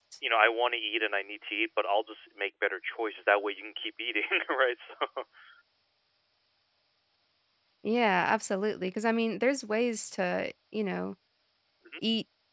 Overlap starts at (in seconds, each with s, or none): none